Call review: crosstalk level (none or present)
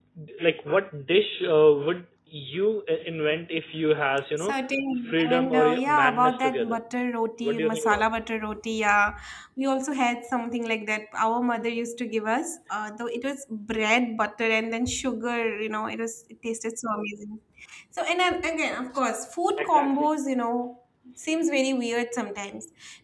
present